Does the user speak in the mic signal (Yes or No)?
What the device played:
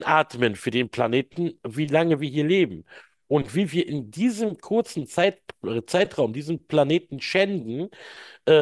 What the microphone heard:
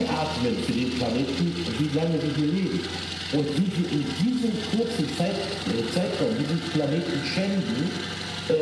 No